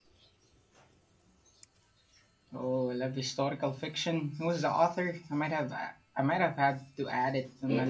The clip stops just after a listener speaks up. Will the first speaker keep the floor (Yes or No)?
No